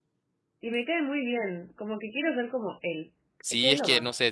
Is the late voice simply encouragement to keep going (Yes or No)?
No